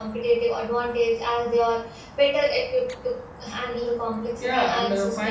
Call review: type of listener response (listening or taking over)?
taking over